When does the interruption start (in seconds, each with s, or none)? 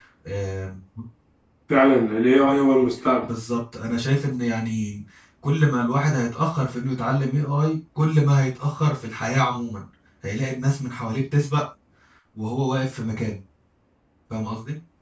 none